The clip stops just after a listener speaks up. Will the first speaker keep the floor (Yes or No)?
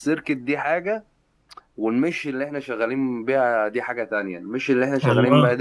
Yes